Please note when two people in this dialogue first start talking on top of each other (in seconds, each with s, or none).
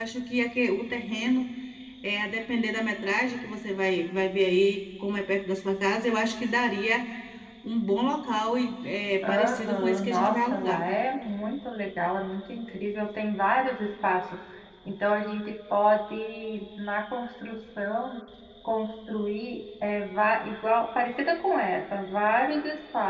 9.2 s